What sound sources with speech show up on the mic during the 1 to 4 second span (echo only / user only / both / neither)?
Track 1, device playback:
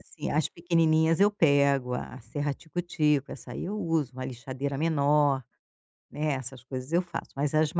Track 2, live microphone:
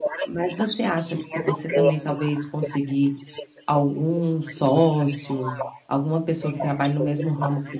both